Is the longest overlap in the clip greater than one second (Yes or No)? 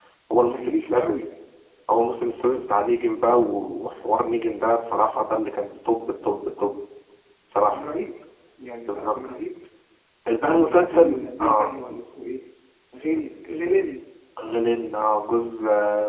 Yes